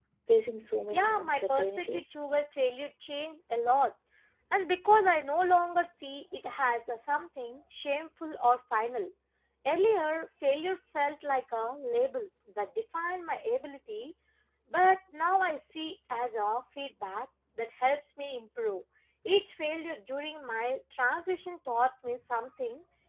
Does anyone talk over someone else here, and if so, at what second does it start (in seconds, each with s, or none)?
0.9 s